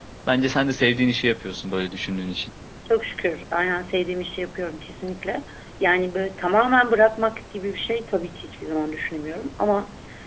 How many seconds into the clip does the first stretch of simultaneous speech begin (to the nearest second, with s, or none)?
none